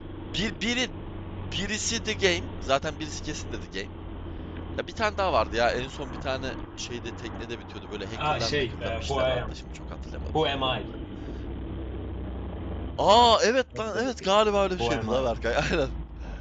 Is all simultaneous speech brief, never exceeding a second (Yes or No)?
No